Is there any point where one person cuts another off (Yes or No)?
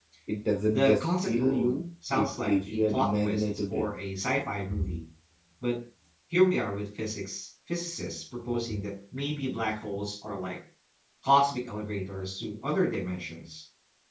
Yes